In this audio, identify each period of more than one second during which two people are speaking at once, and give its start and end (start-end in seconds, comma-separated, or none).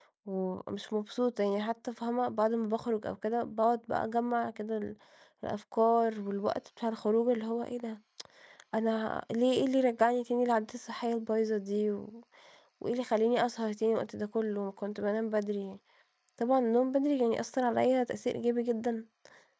none